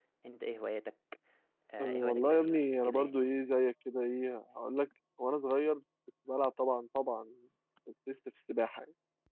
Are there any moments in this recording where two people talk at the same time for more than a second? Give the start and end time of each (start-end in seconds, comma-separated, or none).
1.8-3.2